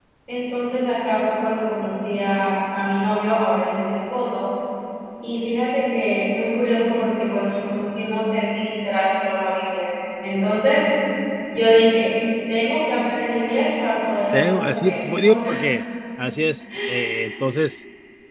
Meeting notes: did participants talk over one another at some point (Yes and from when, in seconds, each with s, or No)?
Yes, from 14.3 s